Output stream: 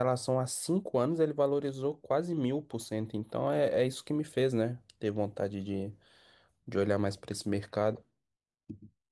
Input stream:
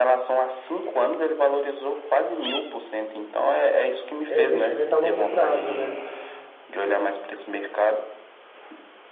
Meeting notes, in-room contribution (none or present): present